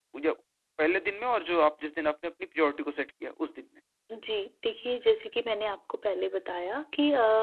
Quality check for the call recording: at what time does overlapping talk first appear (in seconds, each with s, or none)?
none